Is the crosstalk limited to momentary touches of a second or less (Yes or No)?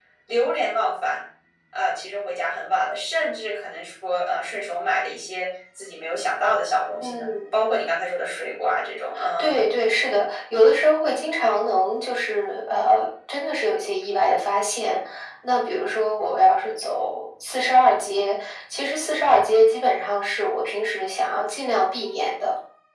Yes